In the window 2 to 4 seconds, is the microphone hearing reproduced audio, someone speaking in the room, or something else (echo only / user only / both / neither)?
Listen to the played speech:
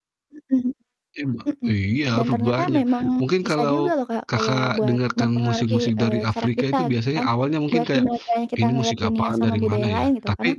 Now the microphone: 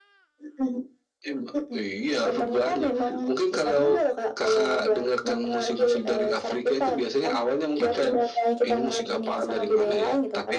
echo only